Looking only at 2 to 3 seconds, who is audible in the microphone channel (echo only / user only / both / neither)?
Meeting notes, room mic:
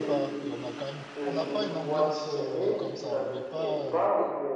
both